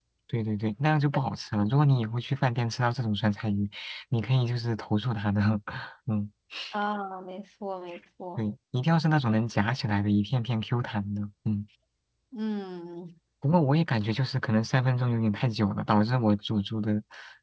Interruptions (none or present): none